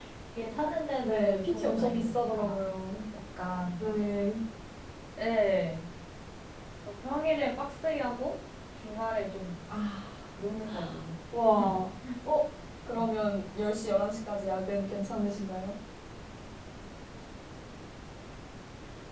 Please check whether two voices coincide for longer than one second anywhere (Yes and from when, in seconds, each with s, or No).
Yes, from 1.0 s